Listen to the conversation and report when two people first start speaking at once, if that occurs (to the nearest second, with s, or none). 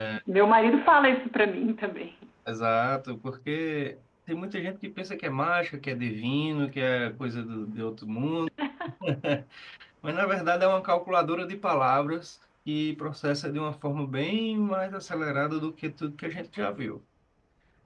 none